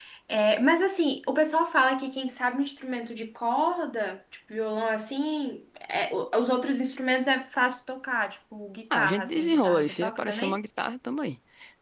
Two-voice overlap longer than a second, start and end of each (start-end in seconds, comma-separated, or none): 8.9-10.6